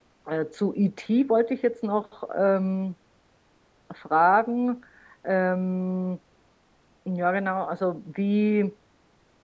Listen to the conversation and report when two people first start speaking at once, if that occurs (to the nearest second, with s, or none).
none